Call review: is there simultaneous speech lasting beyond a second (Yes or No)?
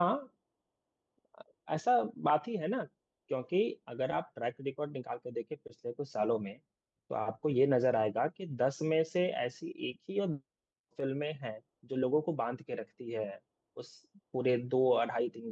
No